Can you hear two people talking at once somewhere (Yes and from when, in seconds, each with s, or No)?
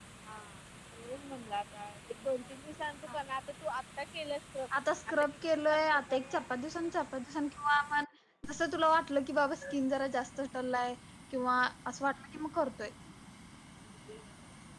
Yes, from 5.1 s